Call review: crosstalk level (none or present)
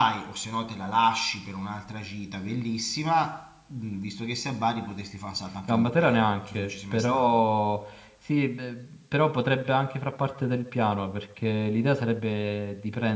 present